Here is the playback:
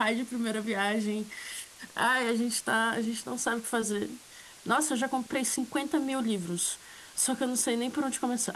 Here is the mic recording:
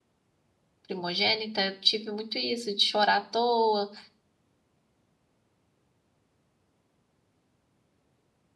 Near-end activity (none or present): present